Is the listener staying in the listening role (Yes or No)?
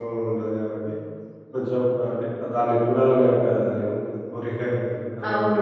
No